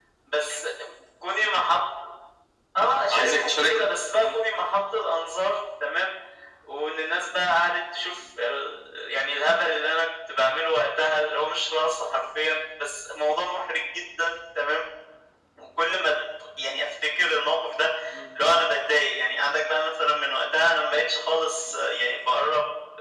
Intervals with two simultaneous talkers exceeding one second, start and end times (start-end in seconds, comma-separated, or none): 3.1-4.4